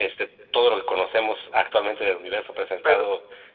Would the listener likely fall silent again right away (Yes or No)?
Yes